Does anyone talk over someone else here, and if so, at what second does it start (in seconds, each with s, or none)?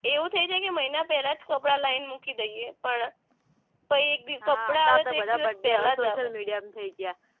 4.4 s